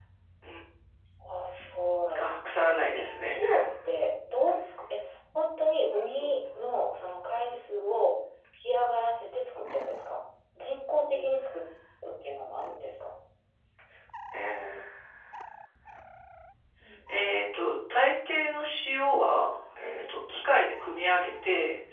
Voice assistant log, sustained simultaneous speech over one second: present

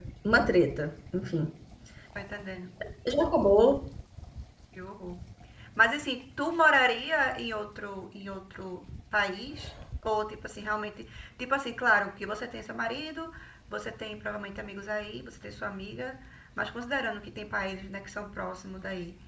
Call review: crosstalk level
none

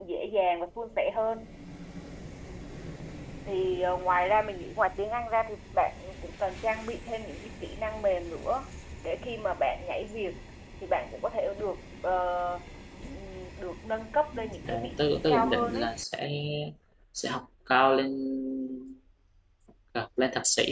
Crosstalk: present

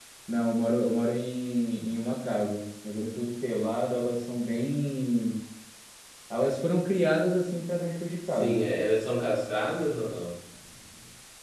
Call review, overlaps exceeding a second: none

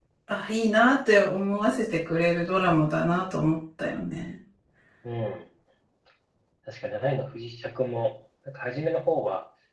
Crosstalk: none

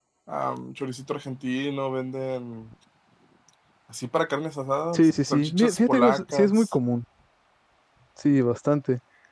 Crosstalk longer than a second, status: present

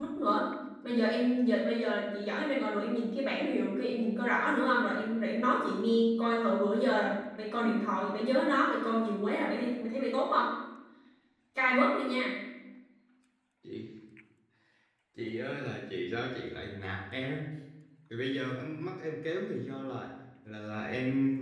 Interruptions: none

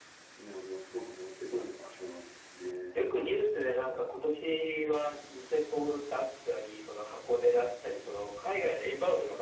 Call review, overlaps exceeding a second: none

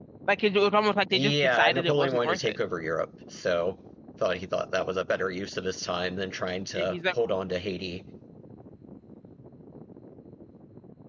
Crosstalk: present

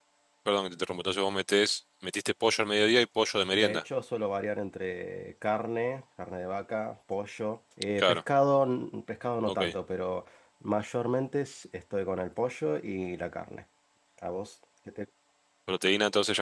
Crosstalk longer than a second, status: none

